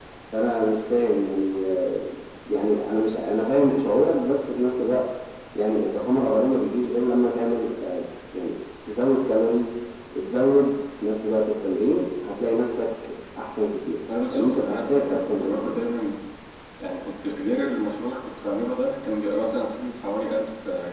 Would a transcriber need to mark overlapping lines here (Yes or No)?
Yes